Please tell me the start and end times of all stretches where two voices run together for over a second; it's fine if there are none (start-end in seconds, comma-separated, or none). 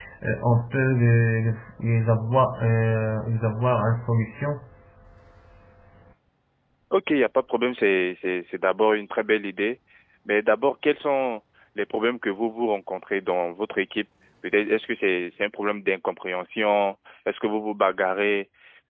none